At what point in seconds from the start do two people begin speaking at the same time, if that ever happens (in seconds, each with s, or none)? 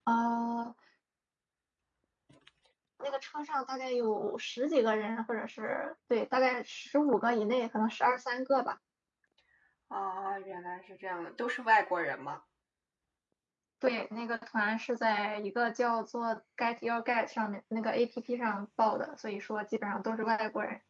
none